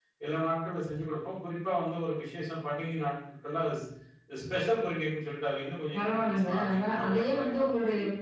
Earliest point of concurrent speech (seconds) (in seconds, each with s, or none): 5.9 s